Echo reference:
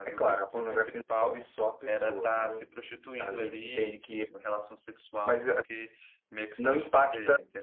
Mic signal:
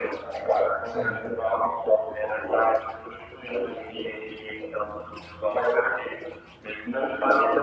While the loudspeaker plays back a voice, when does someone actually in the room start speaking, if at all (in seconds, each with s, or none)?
0.8 s